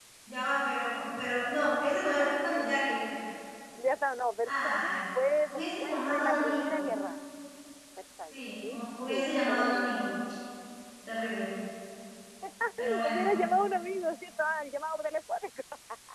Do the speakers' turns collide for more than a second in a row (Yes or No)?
Yes